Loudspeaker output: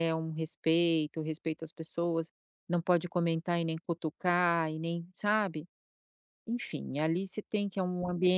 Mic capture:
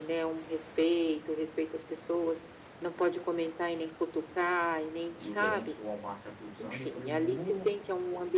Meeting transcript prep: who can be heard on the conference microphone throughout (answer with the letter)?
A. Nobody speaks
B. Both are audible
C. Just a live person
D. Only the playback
B